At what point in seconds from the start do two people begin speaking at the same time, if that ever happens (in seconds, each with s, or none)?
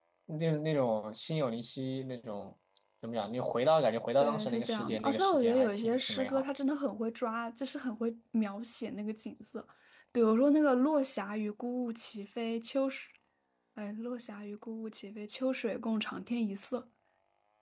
4.2 s